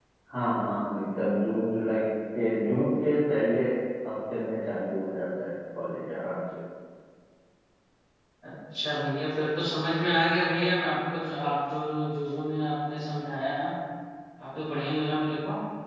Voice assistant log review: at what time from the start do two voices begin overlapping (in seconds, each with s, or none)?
none